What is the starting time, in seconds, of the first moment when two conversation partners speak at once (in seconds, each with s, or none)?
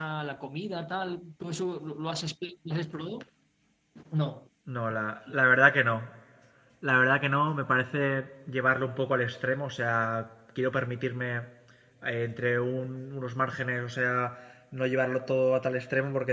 none